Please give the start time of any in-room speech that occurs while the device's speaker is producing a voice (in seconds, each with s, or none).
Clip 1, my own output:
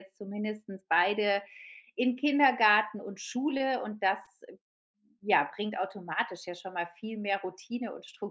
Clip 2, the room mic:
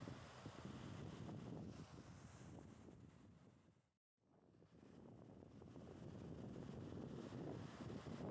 none